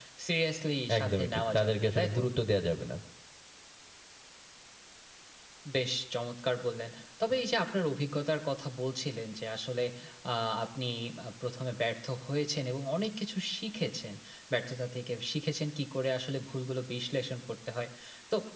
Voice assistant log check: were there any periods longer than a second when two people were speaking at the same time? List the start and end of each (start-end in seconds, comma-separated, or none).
1.0-2.2